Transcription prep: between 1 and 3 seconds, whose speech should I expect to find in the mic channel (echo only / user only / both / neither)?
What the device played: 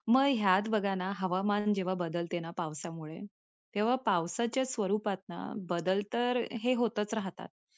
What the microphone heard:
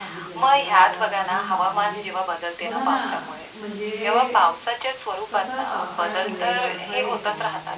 both